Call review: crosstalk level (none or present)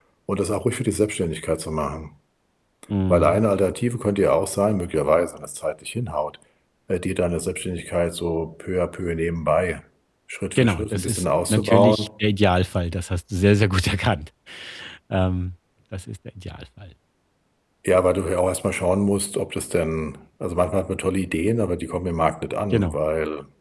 present